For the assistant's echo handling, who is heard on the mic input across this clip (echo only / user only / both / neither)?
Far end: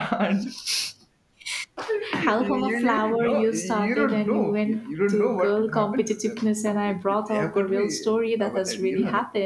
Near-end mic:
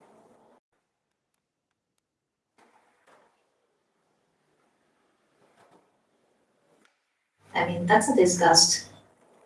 user only